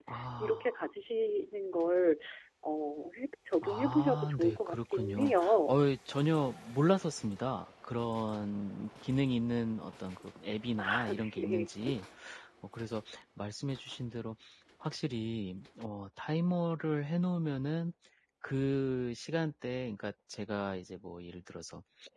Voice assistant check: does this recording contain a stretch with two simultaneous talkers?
Yes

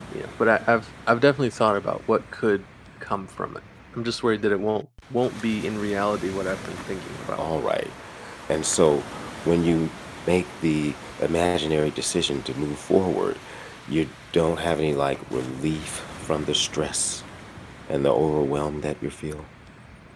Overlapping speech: No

